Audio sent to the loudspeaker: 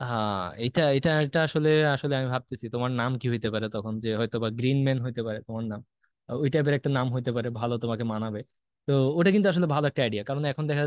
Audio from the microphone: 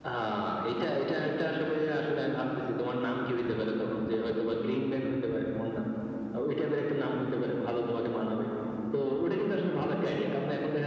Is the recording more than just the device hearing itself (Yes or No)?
No